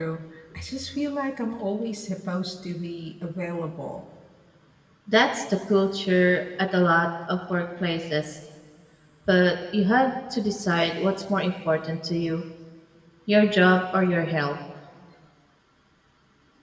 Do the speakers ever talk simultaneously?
No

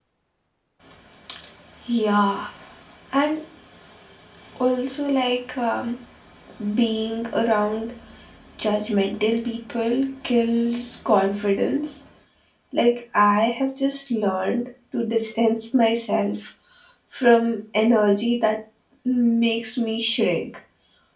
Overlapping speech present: No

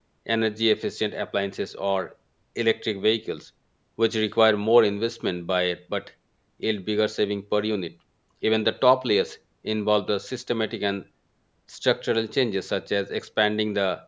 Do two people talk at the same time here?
No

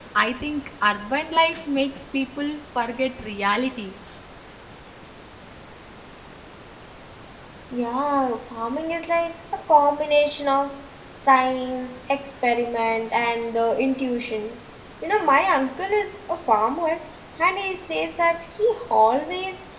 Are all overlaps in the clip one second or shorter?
Yes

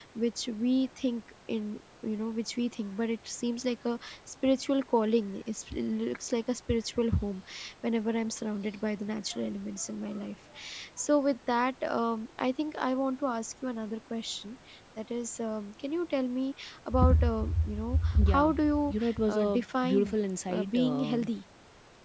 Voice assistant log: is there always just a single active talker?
No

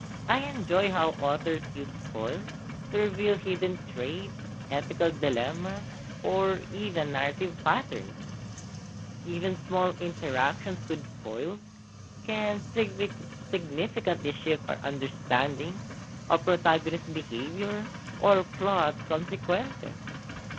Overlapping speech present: No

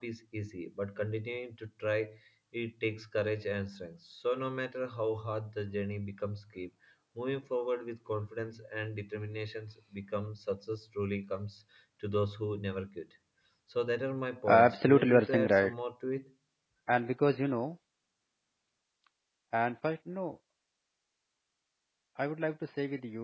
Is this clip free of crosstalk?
No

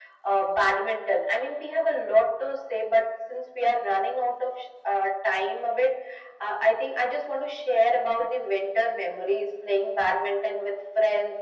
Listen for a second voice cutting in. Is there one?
No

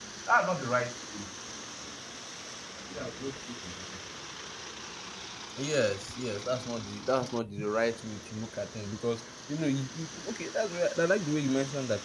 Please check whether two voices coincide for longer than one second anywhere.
No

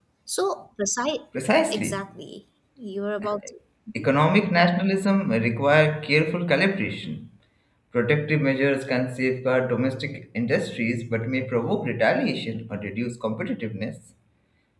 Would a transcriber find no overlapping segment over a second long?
Yes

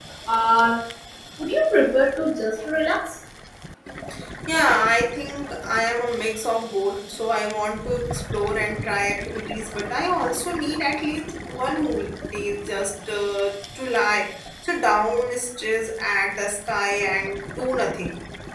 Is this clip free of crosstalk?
Yes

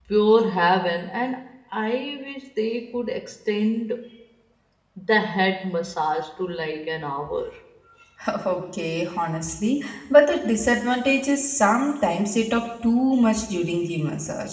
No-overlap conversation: Yes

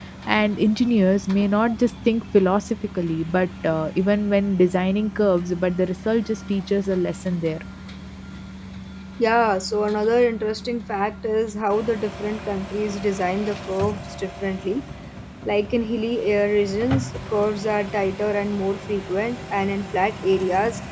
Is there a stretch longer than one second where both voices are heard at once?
No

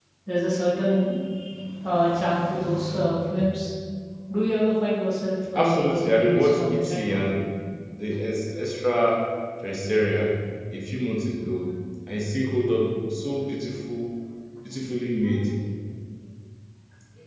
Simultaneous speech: Yes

